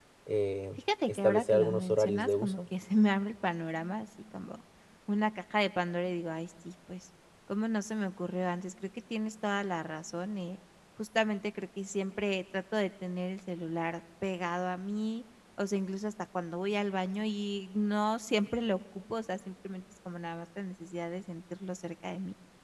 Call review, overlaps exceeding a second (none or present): present